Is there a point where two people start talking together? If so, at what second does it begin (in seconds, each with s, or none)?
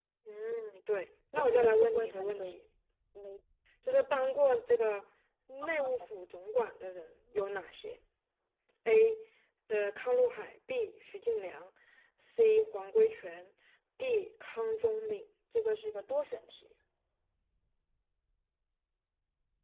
1.4 s